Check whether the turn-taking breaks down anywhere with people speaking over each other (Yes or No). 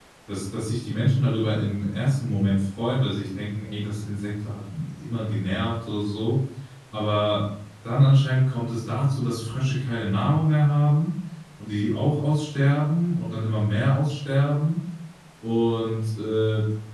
No